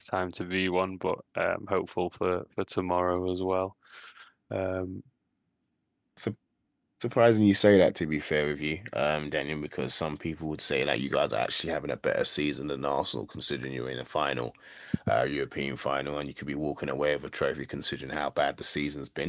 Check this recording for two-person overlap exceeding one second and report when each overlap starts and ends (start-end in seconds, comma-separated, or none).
none